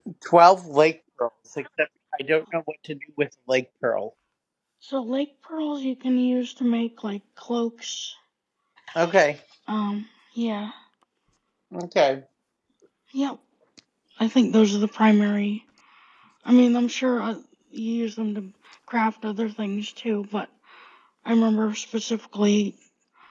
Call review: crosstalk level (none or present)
none